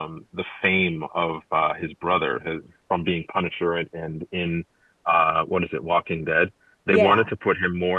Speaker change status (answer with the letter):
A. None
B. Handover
A